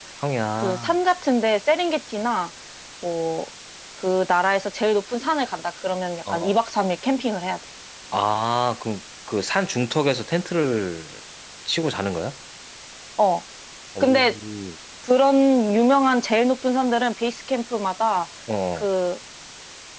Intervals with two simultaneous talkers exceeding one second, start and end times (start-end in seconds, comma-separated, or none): none